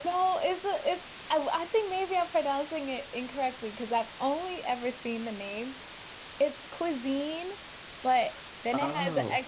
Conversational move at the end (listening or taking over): listening